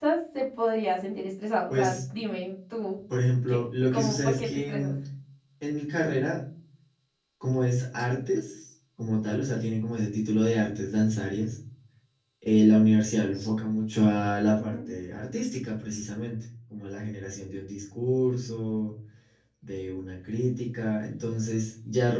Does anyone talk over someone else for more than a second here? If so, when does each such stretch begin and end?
3.5-4.9

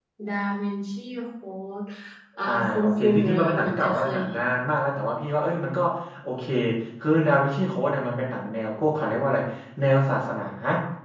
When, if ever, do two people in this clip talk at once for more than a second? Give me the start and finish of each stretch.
2.4-4.4

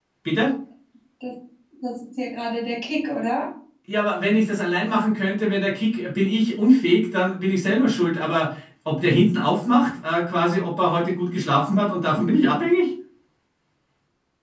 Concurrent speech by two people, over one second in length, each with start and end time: none

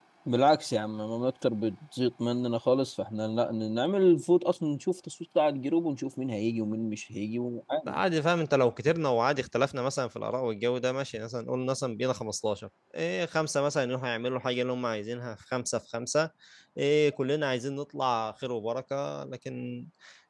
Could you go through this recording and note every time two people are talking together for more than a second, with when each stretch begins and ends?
none

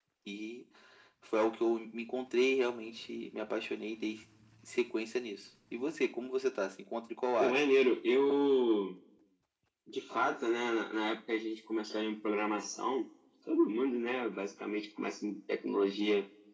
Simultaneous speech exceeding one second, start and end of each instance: none

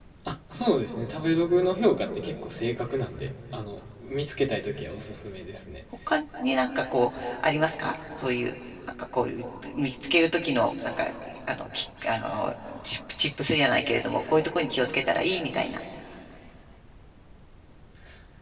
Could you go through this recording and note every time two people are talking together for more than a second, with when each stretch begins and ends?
none

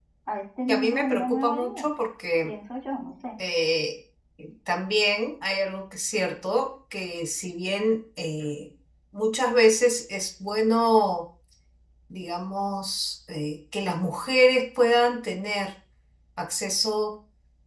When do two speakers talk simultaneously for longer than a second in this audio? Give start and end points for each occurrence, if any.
0.7-1.9

